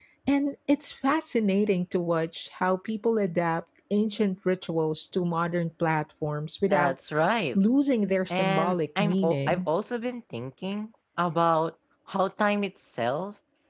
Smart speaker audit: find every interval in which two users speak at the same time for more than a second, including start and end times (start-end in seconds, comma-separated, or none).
8.3-9.7